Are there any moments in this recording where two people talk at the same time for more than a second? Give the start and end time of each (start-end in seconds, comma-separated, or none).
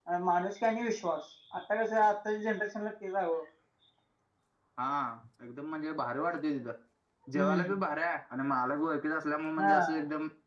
none